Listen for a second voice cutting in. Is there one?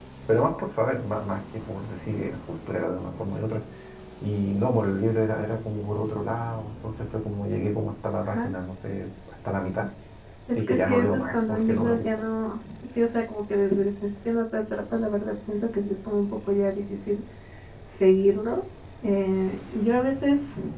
Yes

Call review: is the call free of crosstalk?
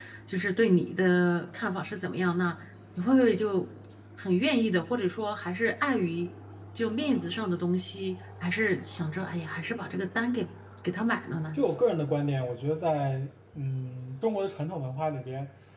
Yes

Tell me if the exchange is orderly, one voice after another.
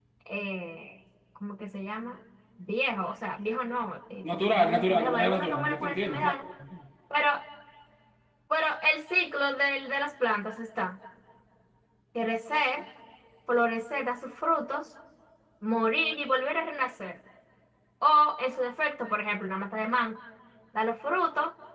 No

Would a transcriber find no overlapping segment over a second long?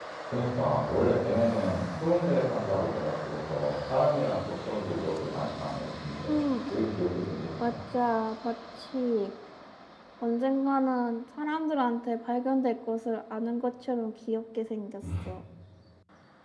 Yes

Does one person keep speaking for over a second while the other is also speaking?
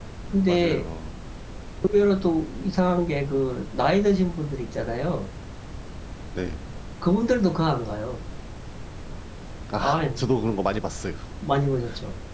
No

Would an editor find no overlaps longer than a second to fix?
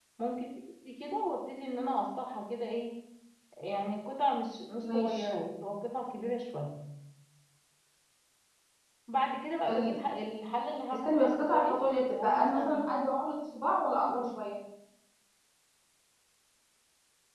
No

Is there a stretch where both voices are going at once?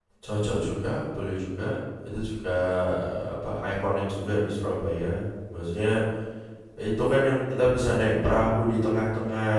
No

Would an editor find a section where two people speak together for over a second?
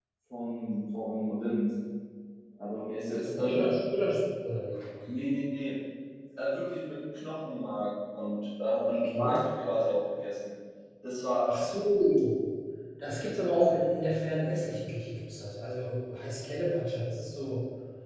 No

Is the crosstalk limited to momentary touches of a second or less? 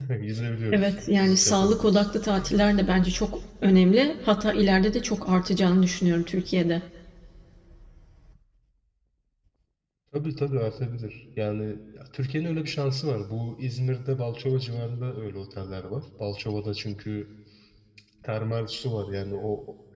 No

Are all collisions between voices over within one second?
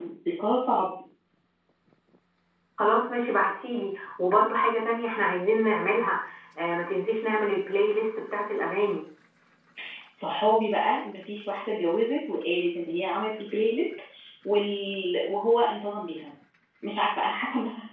Yes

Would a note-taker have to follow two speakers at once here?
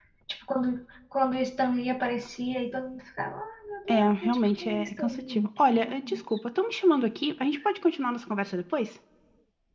Yes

